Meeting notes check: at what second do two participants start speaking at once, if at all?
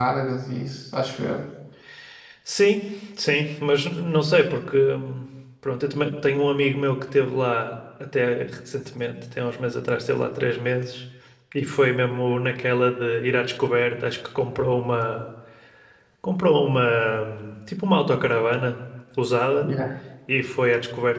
none

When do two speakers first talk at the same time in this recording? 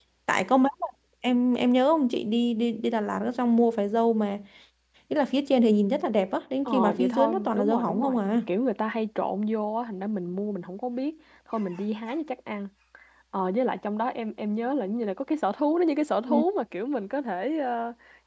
6.7 s

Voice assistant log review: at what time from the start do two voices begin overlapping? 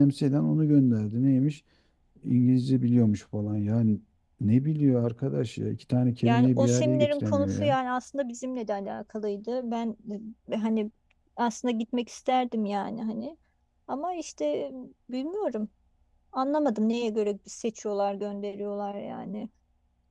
6.2 s

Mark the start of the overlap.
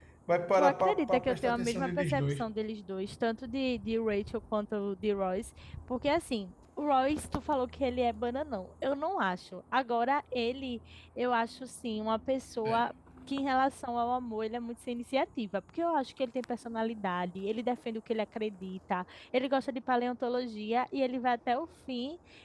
0.5 s

